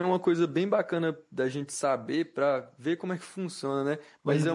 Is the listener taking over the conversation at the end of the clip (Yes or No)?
No